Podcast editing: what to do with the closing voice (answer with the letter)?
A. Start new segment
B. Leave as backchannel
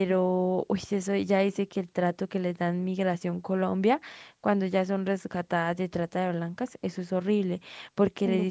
B